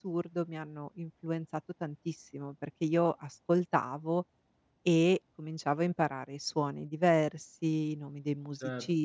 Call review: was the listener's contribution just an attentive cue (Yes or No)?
No